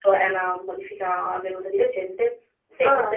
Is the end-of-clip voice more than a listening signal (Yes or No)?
No